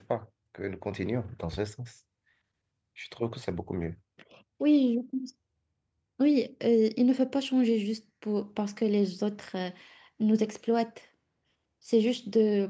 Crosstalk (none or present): none